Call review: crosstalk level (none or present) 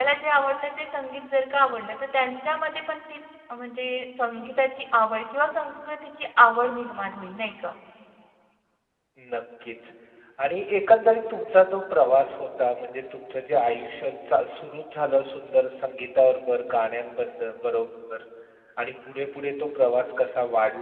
none